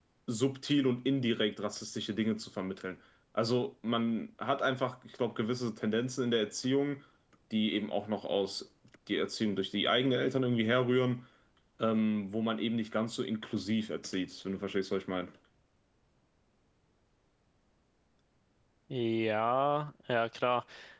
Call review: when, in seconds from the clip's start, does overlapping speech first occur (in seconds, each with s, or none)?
none